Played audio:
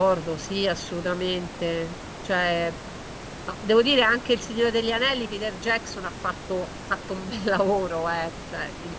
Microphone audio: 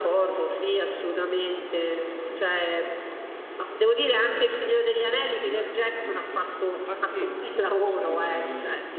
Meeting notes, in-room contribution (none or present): present